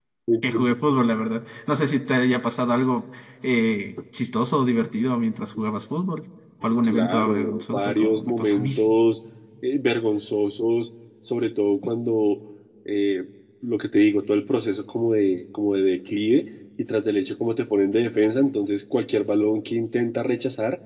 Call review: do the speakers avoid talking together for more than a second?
No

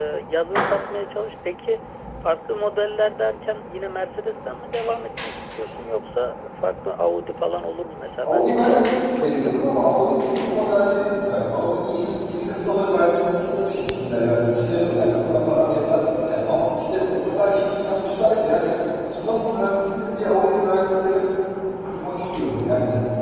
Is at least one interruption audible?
Yes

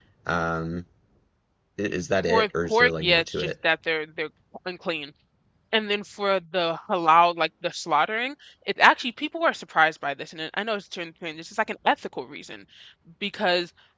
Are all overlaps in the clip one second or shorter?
No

